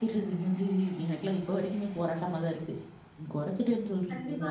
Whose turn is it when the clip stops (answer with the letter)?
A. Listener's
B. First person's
A